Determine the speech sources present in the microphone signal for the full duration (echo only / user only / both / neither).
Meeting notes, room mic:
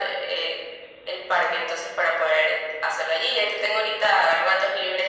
echo only